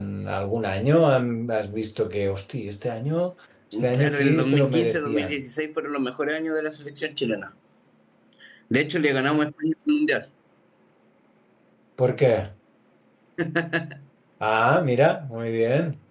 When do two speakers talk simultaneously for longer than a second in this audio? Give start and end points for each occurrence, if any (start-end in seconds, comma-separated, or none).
3.9-5.4